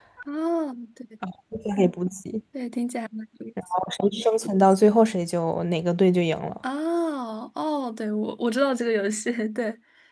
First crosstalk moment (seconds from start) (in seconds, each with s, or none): none